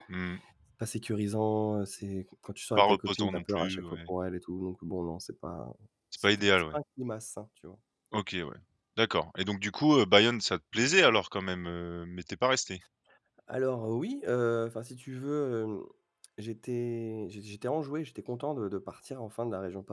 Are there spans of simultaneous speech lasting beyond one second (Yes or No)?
Yes